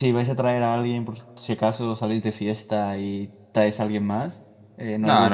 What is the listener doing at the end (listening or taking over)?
taking over